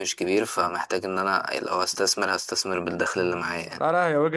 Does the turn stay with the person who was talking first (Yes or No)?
No